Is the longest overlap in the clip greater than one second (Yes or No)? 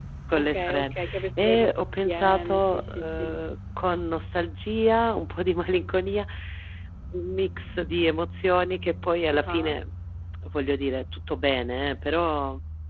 Yes